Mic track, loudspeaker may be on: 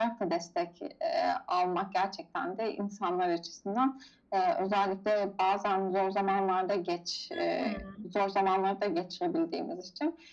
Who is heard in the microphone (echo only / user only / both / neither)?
both